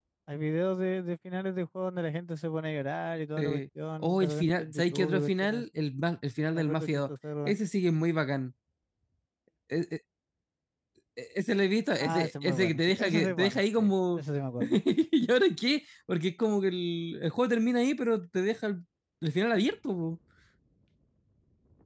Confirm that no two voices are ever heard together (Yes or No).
No